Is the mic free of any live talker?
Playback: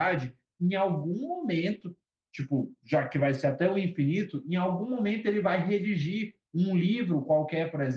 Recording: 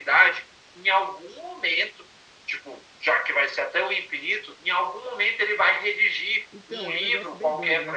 No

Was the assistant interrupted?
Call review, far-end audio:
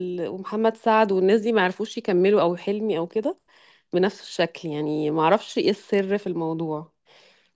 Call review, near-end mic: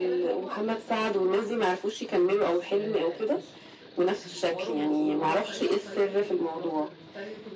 Yes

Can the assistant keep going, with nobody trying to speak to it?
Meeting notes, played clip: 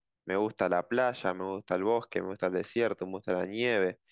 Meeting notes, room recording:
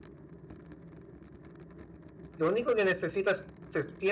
No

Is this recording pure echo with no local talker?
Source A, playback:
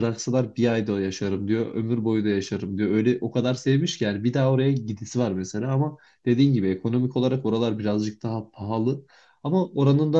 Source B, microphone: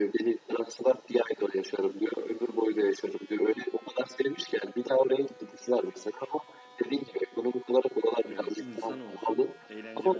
No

